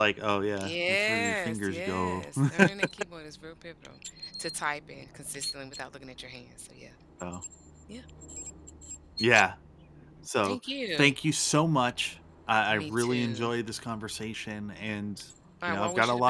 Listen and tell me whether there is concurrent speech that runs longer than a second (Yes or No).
Yes